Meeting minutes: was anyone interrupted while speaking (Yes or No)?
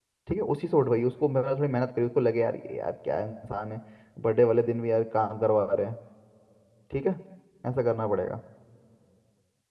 No